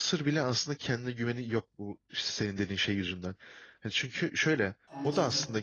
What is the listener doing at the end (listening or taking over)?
listening